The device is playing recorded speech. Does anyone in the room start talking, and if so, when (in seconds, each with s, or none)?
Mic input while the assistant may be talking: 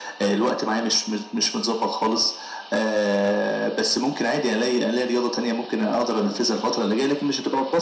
none